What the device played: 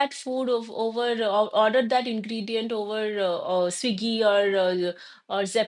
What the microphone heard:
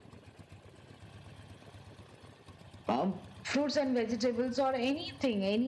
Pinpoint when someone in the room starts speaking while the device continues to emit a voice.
3 s

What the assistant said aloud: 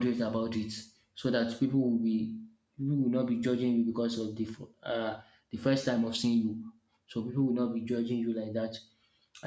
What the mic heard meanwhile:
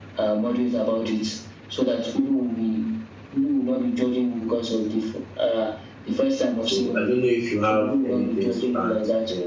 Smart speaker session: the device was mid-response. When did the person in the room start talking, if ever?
7 s

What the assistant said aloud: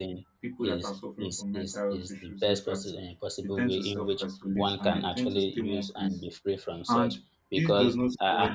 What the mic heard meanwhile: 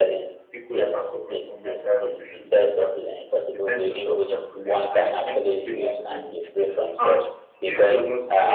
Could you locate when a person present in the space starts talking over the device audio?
none

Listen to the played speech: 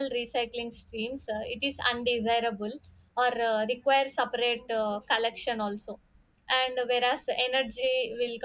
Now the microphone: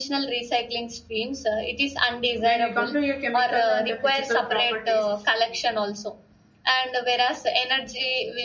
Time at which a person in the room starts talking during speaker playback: 2 s

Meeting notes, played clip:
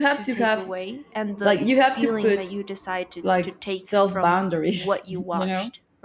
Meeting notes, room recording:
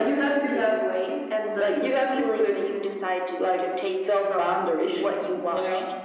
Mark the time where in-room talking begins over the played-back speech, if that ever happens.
none

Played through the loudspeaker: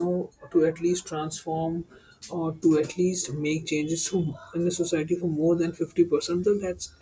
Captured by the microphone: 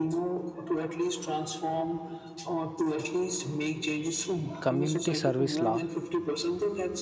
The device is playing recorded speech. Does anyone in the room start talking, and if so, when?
5 s

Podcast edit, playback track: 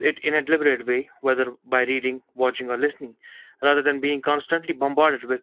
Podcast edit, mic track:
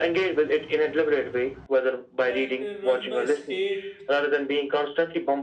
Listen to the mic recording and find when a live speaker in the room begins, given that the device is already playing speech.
2 s

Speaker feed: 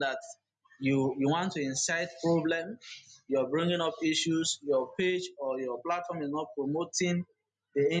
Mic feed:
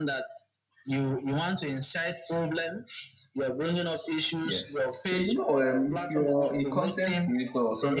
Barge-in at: 4 s

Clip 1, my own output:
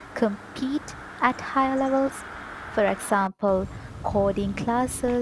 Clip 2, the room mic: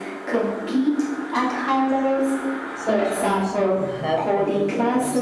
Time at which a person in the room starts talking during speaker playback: 3 s

